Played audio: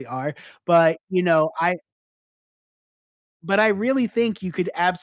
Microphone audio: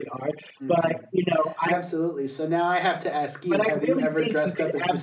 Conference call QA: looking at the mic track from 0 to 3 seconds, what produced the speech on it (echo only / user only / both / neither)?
both